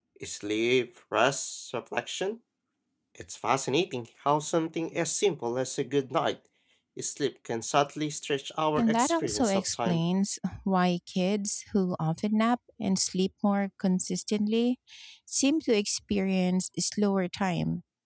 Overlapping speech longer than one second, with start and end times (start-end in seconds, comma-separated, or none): 8.8-10.0